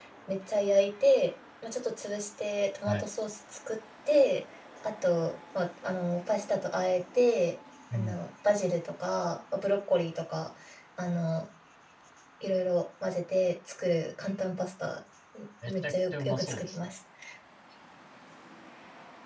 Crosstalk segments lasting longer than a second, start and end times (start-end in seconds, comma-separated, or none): 15.7-16.9